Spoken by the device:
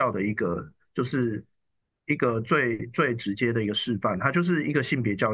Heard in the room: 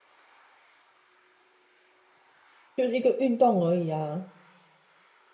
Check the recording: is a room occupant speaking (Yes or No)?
Yes